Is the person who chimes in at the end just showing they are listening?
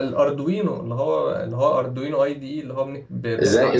No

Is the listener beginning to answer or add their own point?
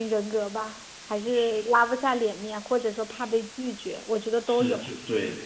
Yes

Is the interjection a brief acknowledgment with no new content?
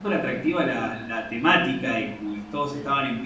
Yes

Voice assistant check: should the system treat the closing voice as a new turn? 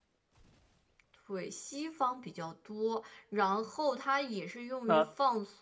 No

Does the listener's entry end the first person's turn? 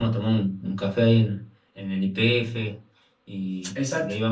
Yes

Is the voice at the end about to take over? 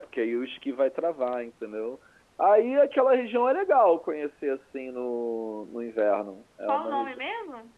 Yes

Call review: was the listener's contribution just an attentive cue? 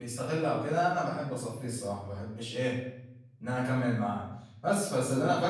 Yes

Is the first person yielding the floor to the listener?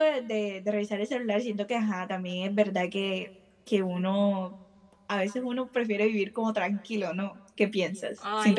Yes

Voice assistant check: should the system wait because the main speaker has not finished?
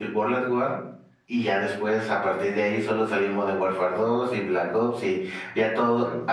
Yes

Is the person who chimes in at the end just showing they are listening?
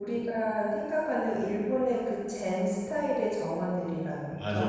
No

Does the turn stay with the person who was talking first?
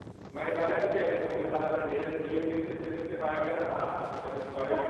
Yes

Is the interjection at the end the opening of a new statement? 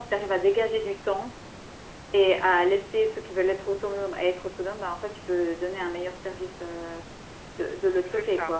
Yes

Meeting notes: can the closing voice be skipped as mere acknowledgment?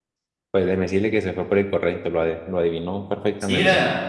No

